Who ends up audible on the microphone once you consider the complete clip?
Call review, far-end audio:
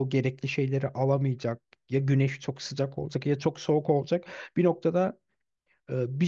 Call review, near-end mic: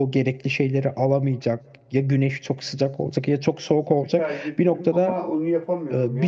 both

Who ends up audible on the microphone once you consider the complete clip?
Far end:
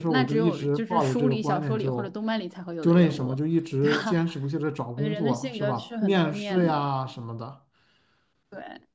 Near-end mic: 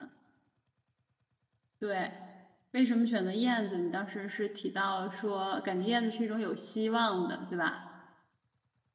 user only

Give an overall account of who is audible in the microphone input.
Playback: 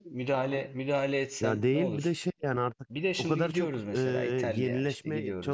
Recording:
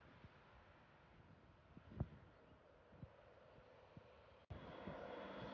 neither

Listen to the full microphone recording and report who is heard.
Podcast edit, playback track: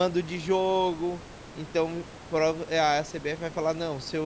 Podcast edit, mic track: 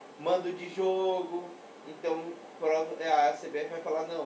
echo only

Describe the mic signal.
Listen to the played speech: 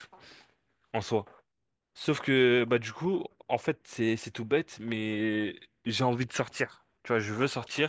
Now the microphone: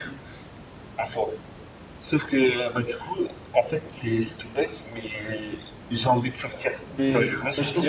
both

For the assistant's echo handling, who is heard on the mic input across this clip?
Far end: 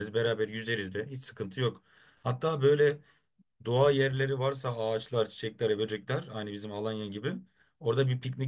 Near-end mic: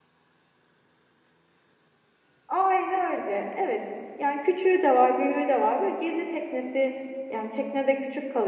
user only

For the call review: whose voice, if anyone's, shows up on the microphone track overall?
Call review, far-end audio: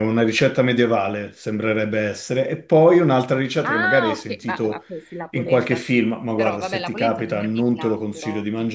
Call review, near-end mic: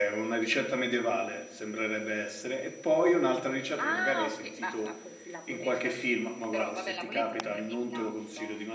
echo only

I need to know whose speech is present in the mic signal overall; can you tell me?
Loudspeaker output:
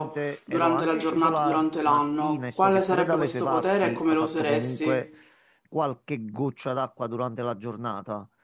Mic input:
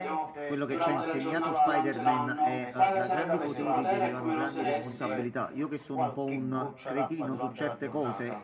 both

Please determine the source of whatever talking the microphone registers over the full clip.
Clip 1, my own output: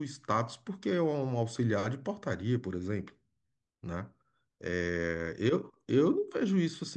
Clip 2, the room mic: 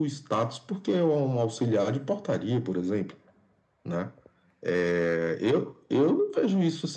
echo only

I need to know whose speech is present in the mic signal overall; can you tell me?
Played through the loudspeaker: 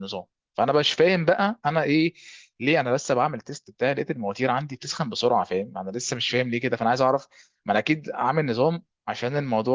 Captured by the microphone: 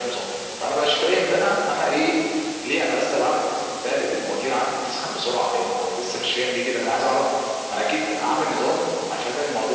echo only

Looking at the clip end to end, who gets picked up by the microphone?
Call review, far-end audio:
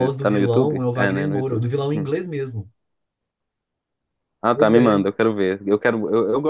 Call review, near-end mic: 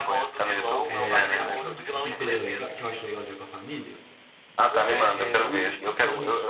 both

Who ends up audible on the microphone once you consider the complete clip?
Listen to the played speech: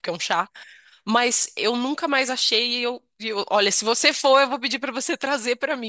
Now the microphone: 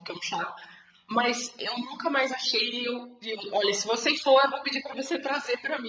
echo only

